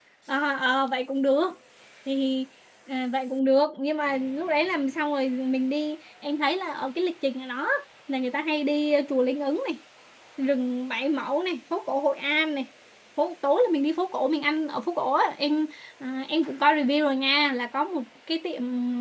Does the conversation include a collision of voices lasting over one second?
No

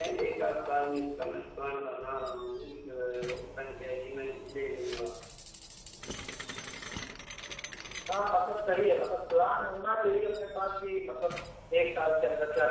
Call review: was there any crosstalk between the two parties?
No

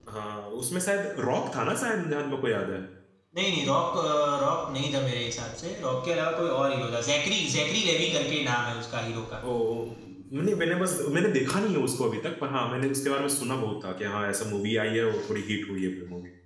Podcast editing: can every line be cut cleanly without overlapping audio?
Yes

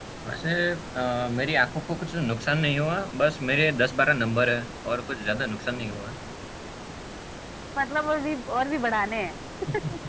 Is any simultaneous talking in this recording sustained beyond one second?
No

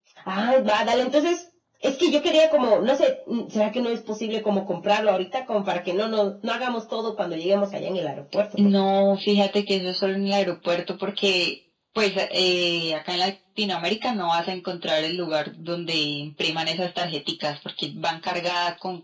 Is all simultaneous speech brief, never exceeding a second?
Yes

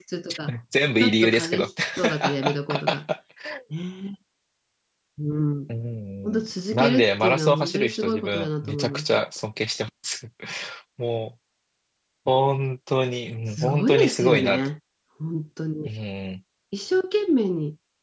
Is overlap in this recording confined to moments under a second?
No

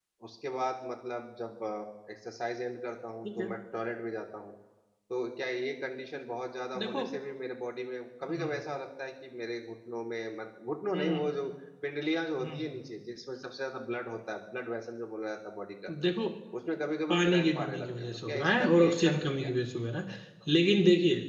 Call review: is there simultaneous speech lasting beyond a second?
Yes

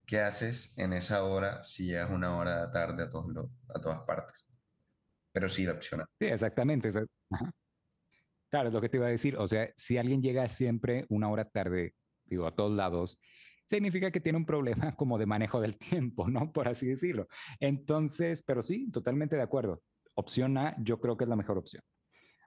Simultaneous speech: No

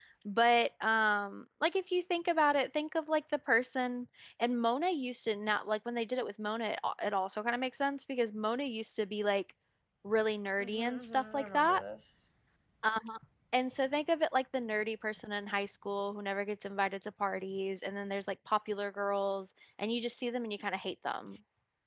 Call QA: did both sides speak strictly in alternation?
No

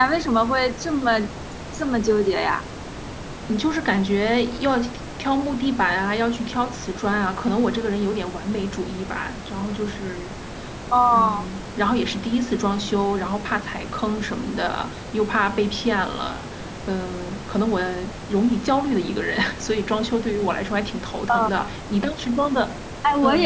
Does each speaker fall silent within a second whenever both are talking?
Yes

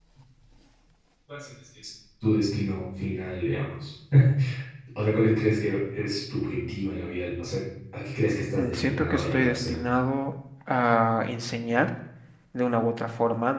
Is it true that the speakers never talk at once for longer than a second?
No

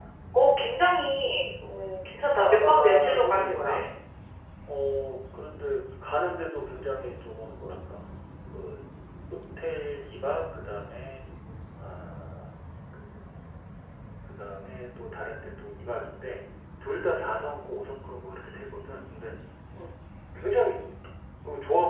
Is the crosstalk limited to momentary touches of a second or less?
No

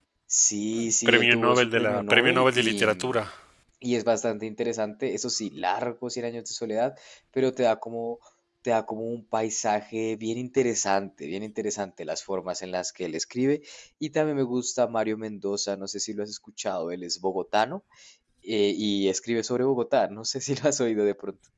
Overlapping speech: Yes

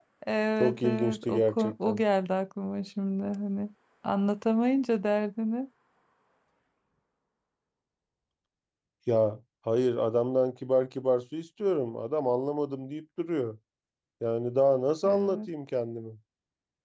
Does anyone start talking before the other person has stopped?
Yes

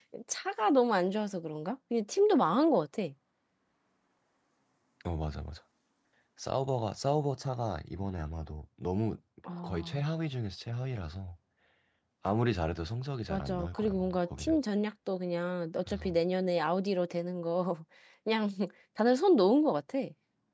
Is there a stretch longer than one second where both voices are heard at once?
Yes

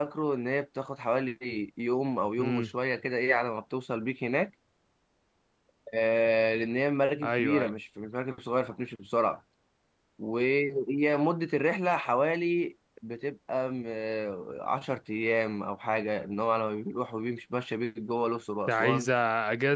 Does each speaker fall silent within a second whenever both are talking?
Yes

